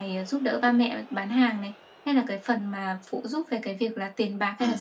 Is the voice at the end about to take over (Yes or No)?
Yes